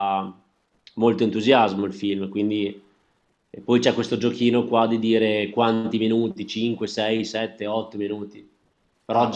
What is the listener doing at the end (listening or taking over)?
listening